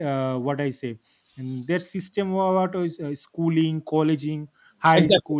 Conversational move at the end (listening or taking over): listening